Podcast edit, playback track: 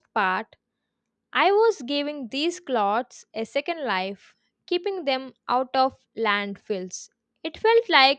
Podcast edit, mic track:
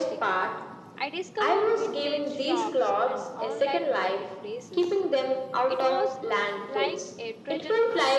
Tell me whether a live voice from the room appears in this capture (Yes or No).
Yes